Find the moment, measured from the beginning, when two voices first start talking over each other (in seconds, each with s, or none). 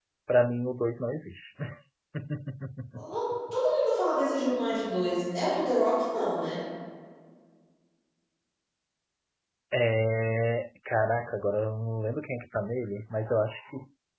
none